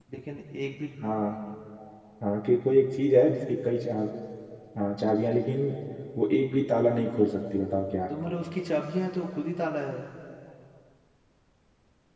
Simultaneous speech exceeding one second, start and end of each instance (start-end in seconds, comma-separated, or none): none